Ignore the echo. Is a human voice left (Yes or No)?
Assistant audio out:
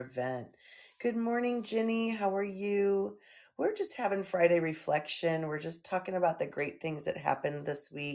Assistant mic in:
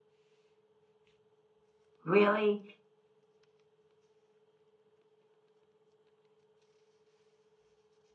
Yes